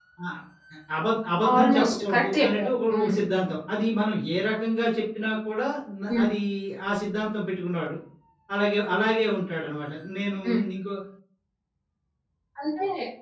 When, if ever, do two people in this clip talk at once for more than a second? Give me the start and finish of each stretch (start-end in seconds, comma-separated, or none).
1.5-3.1